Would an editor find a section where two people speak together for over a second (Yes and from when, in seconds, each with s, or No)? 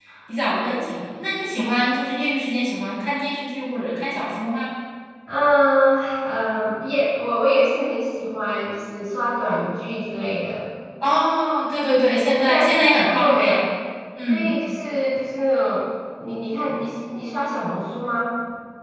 Yes, from 12.0 s